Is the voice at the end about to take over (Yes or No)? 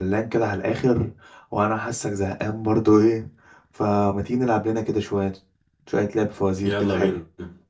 Yes